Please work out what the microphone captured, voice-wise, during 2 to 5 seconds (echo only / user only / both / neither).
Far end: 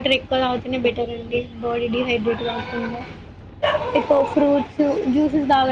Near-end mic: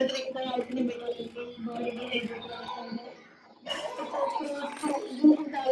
echo only